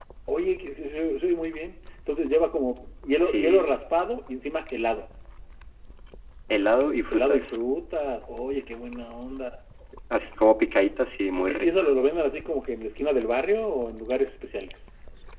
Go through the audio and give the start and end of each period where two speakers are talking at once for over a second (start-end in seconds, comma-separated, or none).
none